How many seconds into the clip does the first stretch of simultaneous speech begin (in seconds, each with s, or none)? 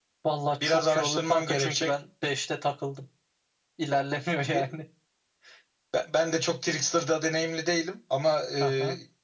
0.6 s